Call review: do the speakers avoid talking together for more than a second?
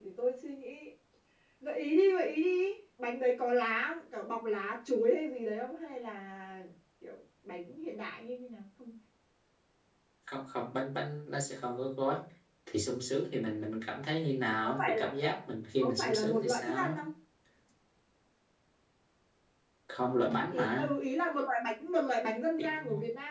No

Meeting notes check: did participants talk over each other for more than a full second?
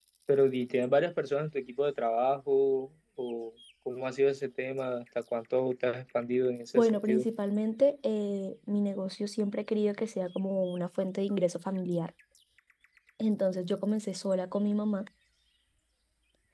No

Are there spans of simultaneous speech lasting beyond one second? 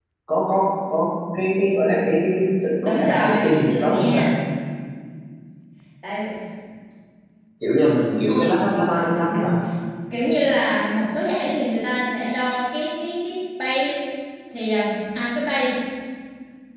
Yes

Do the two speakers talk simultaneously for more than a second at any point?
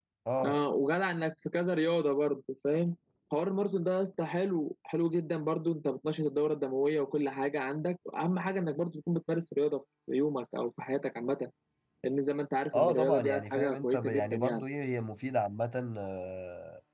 Yes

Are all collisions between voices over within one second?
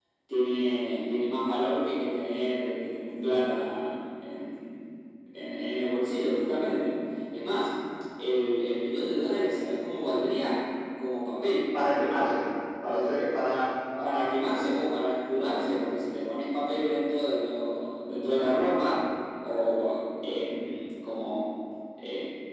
Yes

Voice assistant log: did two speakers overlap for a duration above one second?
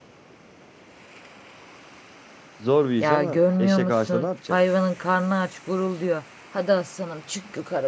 Yes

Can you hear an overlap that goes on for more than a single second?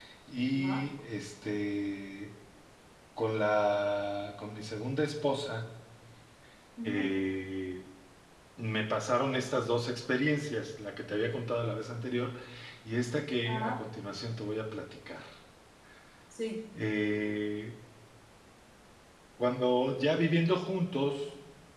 No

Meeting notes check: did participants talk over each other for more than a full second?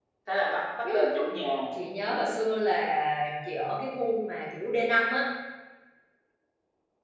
No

